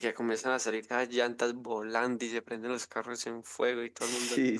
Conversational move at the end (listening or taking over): taking over